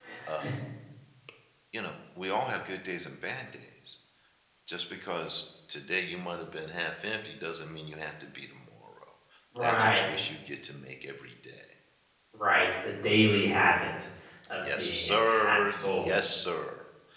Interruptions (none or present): present